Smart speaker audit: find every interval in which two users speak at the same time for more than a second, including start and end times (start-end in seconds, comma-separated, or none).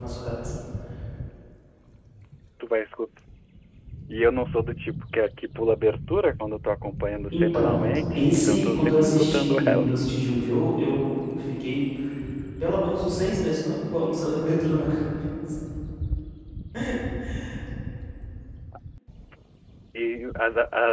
8.2-10.0